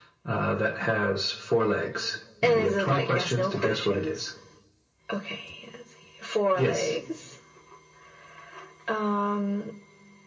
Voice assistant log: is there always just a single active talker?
No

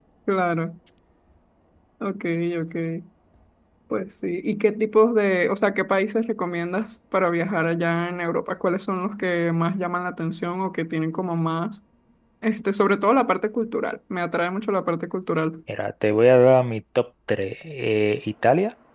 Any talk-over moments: No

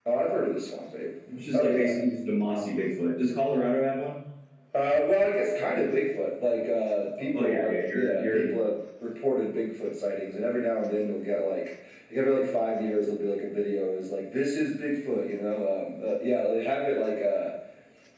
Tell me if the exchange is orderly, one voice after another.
No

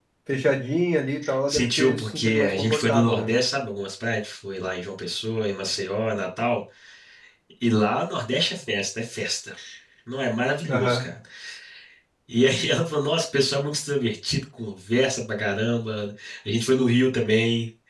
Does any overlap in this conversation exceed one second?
Yes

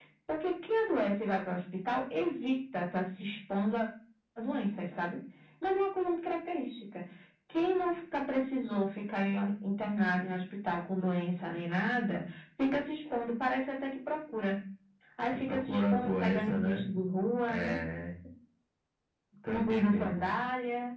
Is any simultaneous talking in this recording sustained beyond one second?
Yes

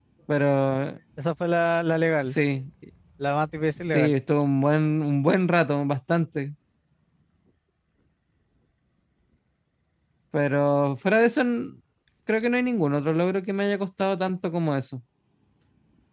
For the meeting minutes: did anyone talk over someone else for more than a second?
No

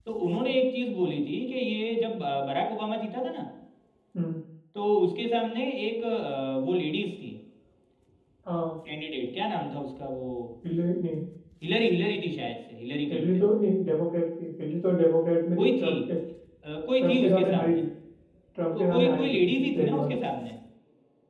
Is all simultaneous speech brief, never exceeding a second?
No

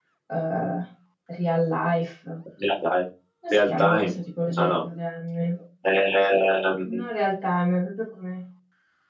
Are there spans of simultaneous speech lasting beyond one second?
No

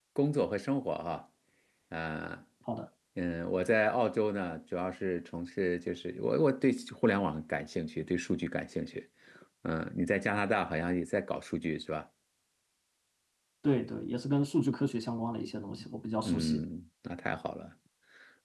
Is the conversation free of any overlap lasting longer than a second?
Yes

